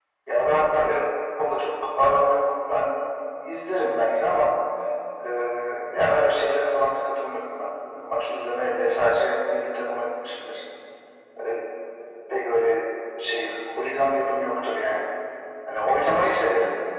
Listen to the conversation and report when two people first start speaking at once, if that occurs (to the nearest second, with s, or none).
none